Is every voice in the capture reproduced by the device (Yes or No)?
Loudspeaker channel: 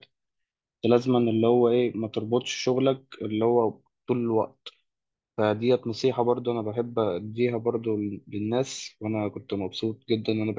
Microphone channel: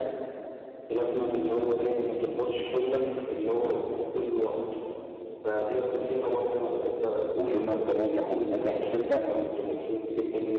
No